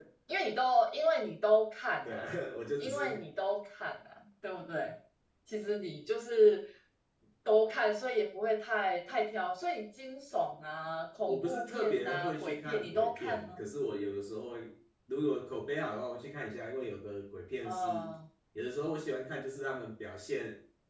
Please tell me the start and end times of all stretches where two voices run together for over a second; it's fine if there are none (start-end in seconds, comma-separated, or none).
11.3-13.6